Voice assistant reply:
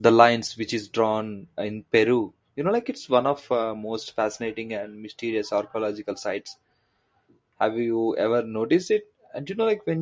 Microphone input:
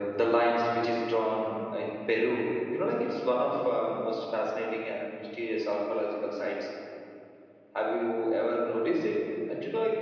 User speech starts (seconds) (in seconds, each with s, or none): none